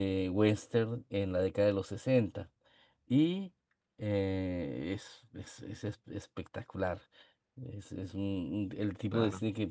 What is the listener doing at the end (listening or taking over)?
listening